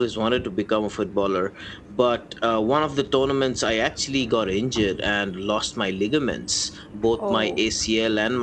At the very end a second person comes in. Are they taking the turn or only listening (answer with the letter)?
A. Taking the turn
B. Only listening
B